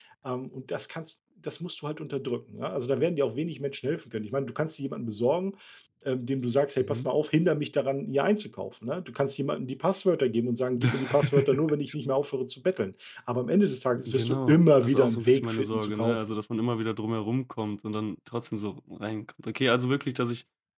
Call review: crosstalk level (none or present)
present